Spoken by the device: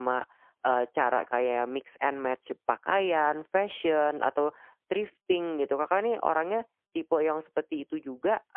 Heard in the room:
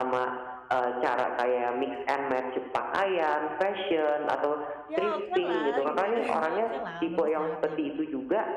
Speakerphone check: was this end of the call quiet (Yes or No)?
No